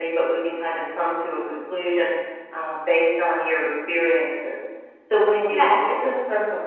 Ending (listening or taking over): listening